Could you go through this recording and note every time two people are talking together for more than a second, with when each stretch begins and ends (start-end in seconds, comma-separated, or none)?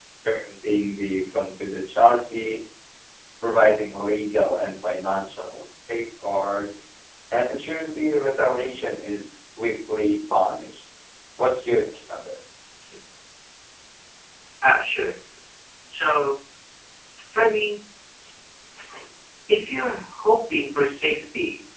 none